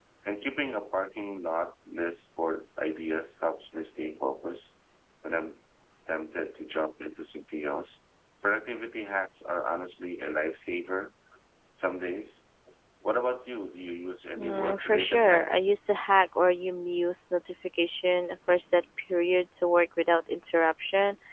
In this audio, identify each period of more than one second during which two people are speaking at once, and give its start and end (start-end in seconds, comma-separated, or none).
14.4-15.7